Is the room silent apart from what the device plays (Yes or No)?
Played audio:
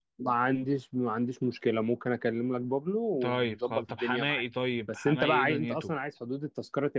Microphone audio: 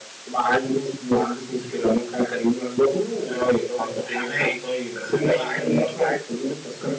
Yes